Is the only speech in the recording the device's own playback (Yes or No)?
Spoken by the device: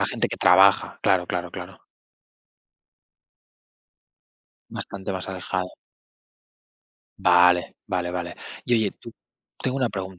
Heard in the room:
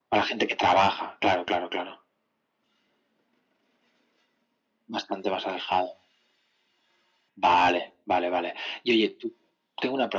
Yes